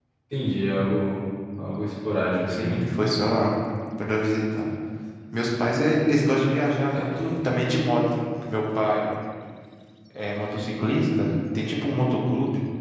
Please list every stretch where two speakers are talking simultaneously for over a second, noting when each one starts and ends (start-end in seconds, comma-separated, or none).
none